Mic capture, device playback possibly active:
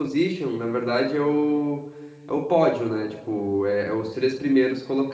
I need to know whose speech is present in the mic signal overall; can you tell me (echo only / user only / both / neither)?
user only